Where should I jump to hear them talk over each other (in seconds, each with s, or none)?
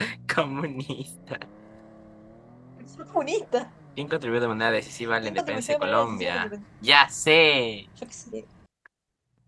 5.2 s